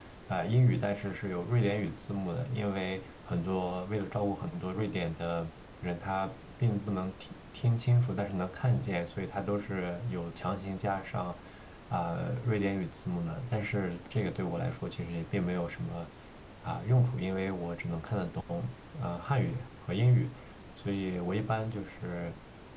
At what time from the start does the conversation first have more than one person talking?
none

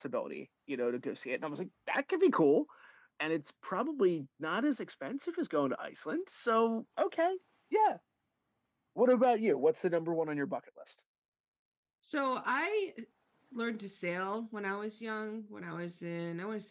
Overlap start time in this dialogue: none

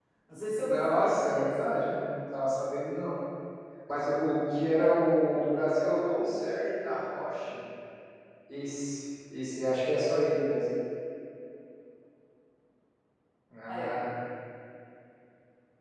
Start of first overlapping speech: 0.6 s

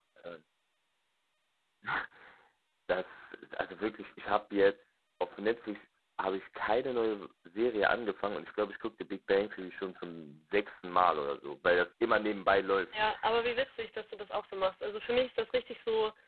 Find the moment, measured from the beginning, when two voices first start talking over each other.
none

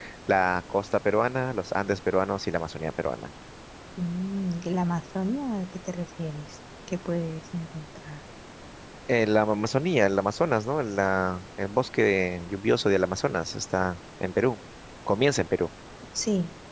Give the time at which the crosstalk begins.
none

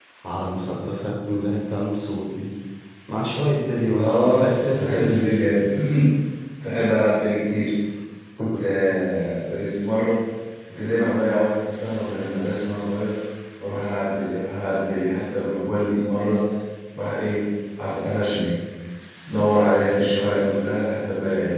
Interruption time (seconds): 3.9 s

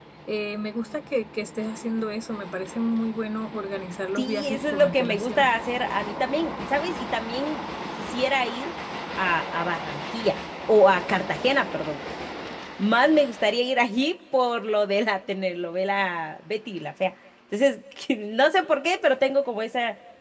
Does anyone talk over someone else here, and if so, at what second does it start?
4.2 s

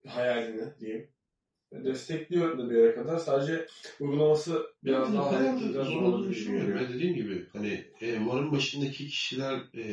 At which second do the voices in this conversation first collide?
4.8 s

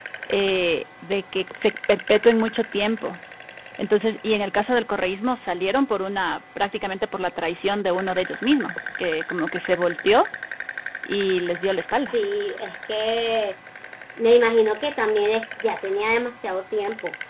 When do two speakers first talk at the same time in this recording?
none

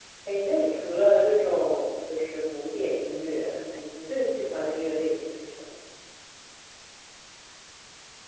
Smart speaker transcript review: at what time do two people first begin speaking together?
none

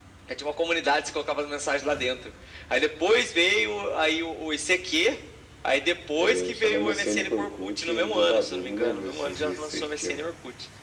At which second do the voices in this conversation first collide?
6.1 s

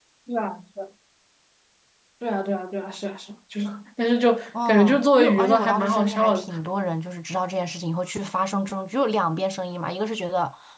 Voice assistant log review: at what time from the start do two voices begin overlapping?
4.5 s

